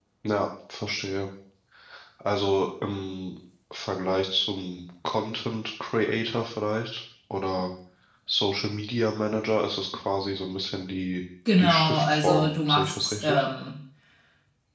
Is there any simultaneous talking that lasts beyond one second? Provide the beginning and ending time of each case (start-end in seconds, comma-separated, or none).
11.6-13.4